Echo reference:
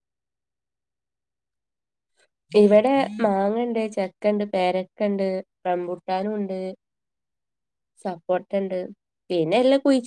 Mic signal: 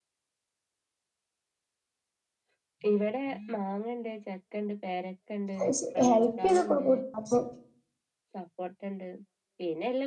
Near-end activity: present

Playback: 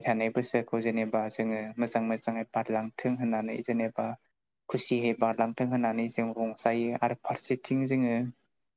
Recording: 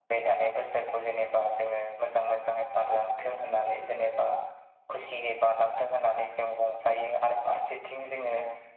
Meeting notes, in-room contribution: none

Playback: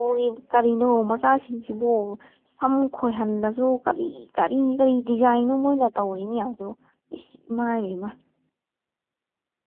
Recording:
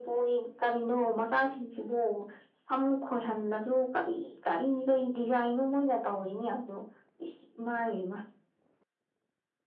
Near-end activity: none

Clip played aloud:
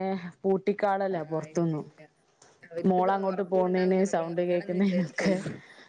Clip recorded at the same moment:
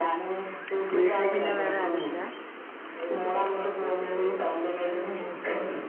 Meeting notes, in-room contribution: present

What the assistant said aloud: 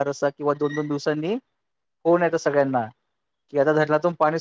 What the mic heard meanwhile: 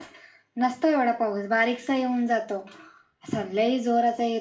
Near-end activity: present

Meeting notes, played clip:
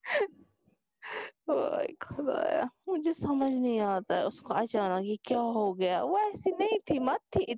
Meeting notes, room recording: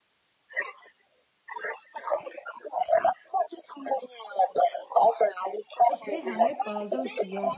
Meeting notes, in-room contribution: present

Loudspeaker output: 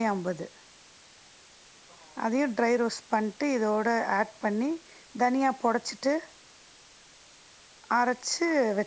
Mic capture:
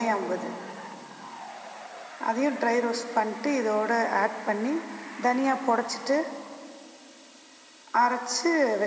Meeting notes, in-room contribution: none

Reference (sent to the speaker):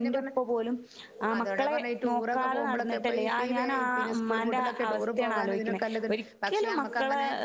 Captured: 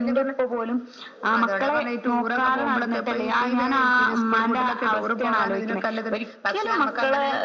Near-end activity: none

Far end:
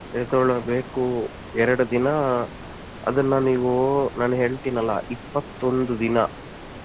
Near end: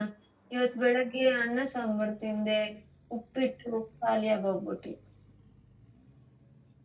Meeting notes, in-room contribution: present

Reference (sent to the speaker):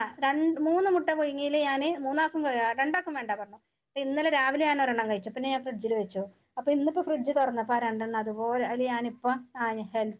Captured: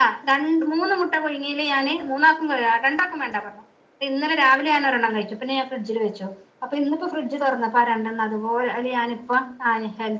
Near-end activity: none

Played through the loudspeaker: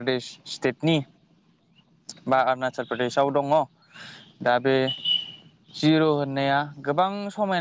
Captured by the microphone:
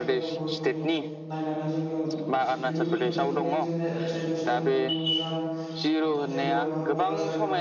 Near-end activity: present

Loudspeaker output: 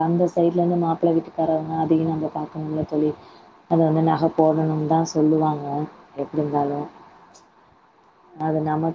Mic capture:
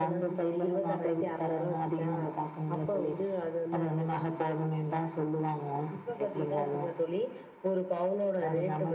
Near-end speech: present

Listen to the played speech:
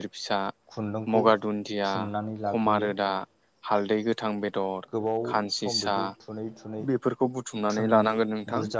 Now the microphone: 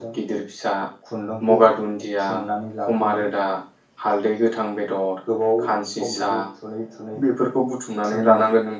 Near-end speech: none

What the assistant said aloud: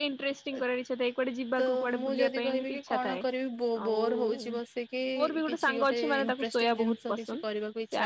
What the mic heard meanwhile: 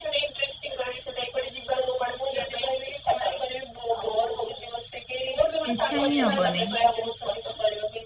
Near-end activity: present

